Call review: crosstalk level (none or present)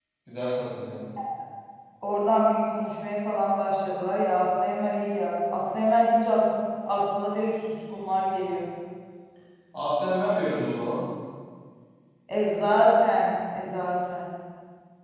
none